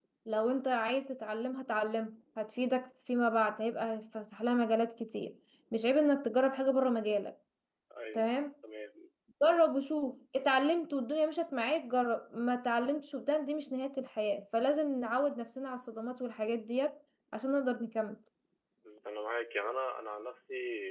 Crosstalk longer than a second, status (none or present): none